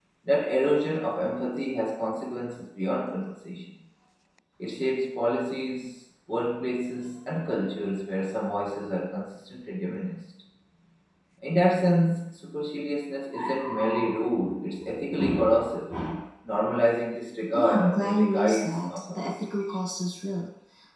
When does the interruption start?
17.5 s

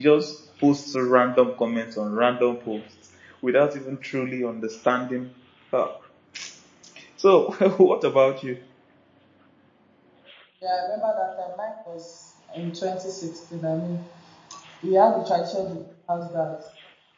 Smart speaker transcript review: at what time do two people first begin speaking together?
none

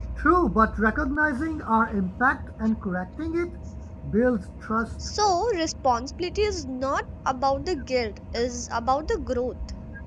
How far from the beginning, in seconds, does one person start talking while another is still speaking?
none

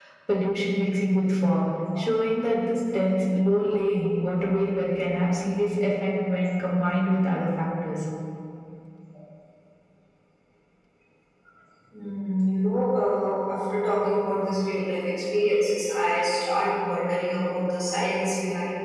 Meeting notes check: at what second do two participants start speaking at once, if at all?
none

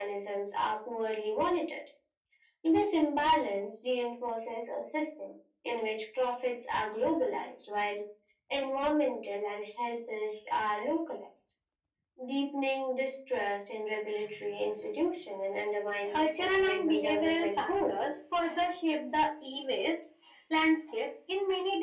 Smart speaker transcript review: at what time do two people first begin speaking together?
16.1 s

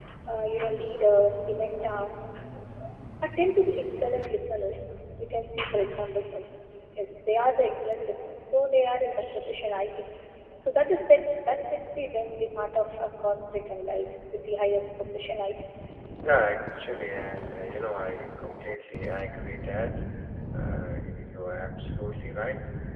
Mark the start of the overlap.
none

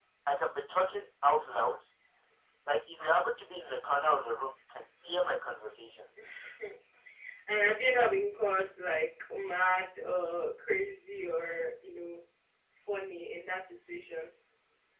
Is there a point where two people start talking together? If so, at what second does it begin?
none

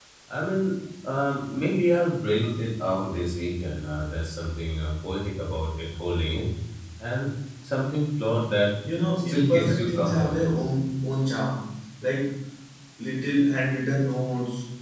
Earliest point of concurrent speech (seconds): 9.2 s

